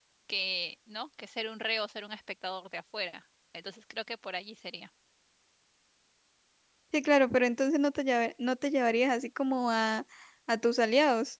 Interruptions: none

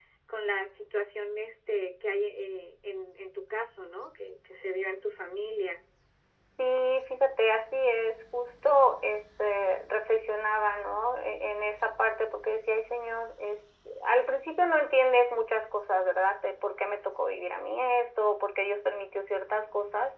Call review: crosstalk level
none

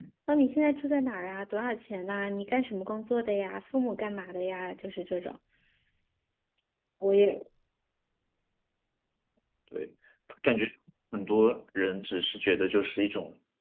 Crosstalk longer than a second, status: none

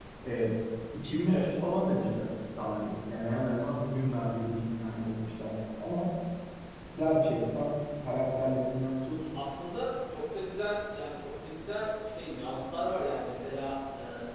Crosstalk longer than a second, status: none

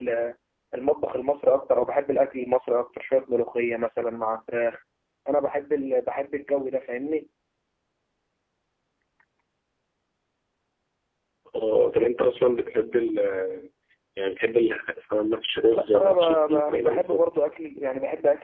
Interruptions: present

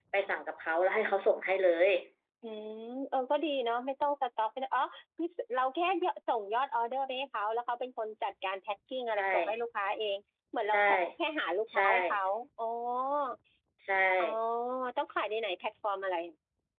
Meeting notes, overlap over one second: none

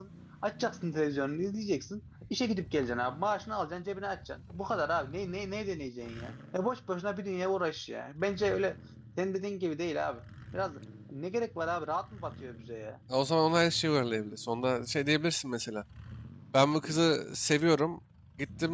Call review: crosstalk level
none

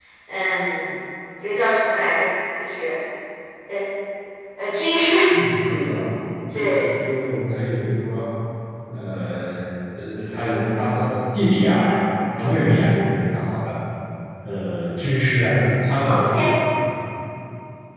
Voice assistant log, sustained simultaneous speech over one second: none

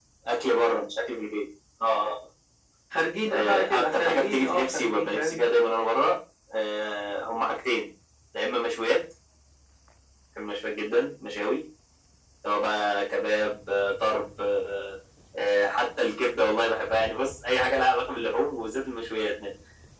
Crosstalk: present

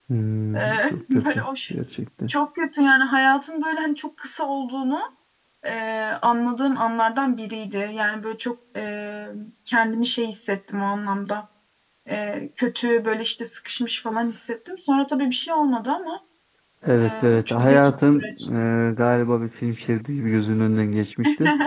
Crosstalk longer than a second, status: present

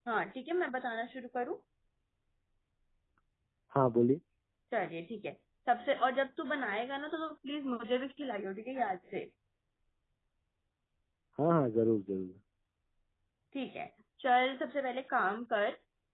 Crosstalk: none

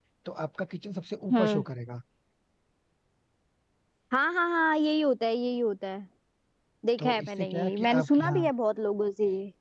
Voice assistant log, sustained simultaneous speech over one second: present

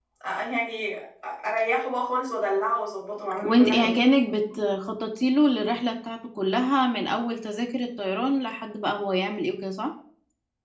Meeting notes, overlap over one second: none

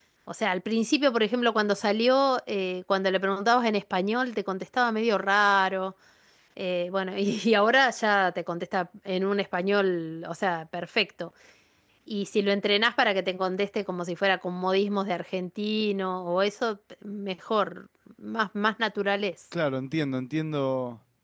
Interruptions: none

